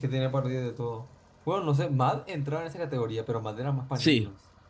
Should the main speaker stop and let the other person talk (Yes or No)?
Yes